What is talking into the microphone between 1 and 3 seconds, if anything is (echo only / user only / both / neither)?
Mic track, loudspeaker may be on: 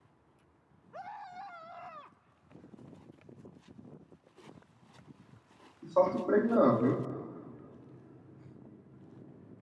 neither